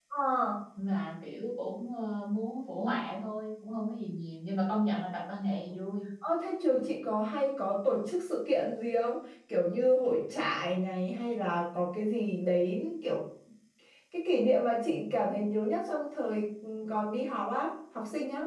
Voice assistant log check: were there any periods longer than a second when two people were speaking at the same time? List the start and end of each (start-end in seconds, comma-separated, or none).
none